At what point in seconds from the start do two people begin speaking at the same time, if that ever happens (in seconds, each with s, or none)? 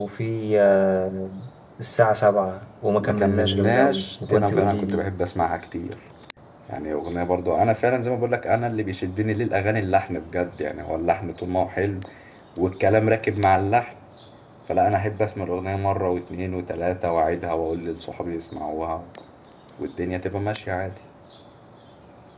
3.0 s